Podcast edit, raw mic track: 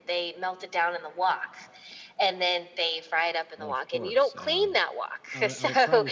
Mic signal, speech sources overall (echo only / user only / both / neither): both